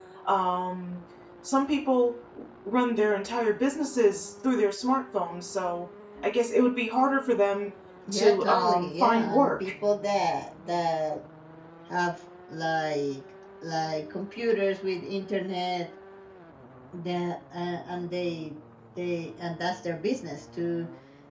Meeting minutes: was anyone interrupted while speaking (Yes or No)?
Yes